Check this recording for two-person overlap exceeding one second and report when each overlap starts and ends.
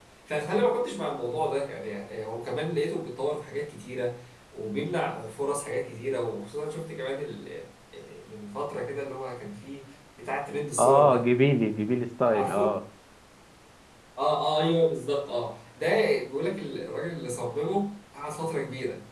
none

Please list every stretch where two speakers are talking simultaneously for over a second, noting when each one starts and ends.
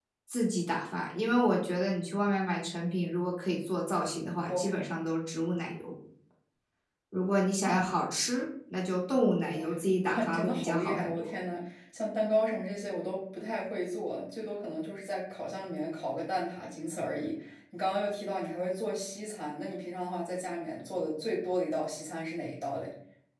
10.1-11.4

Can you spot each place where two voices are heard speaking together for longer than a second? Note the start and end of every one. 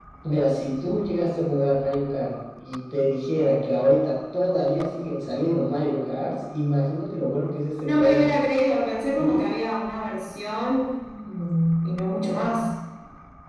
none

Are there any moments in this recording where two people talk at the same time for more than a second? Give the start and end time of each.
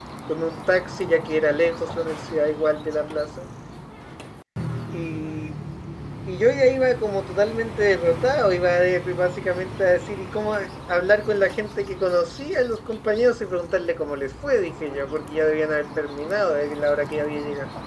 none

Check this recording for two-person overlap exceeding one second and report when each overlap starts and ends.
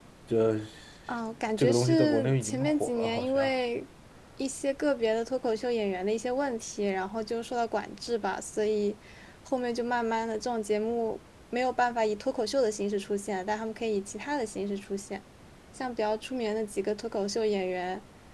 1.6-3.5

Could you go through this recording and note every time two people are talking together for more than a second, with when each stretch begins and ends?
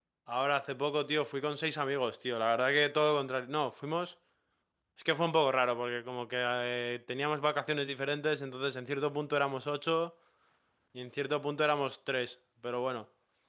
none

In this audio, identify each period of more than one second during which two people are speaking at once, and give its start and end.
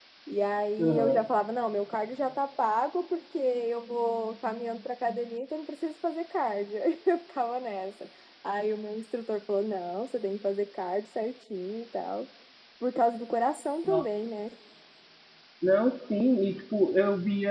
none

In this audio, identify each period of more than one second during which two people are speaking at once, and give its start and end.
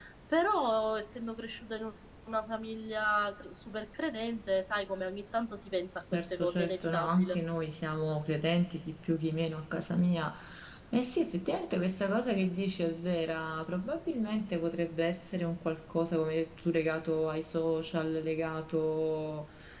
6.1-7.4

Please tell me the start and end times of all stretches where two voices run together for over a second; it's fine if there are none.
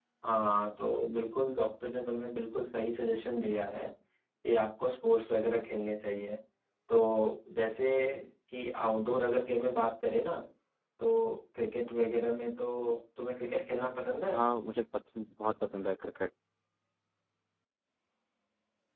none

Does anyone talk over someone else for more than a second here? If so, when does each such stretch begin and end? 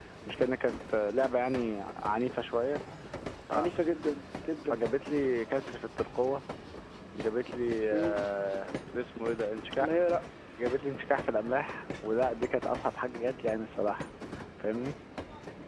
none

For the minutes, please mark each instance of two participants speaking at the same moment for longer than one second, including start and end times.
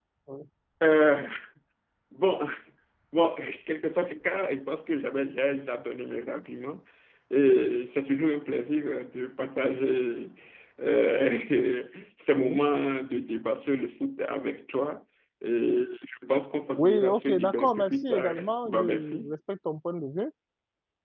16.8-19.3

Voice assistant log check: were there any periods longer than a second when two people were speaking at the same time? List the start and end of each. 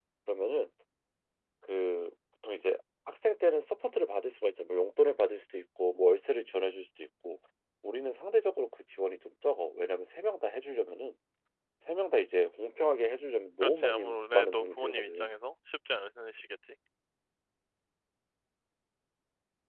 13.6-15.4

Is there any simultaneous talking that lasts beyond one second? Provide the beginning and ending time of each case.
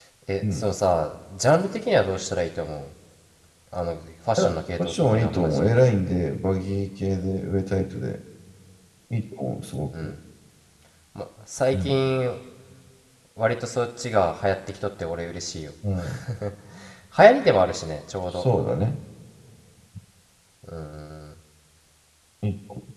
4.4-5.8

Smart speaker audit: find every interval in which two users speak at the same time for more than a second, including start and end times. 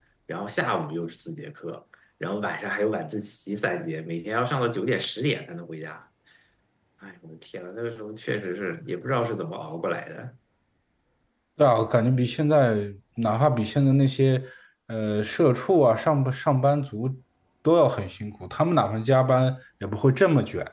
none

